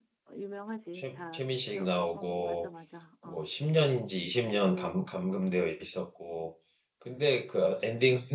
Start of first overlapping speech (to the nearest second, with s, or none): 1 s